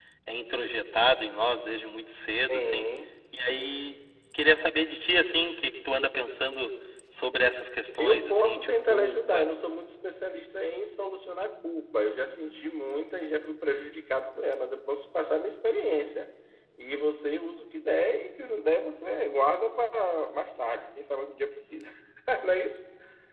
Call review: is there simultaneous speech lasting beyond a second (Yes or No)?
Yes